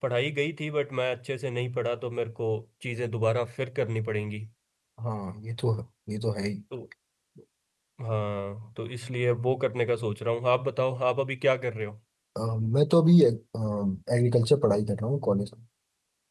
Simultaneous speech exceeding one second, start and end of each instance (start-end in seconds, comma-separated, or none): none